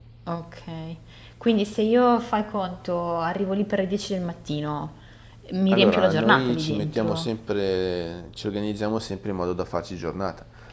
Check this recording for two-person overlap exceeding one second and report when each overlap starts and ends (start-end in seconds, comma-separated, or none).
5.7-7.3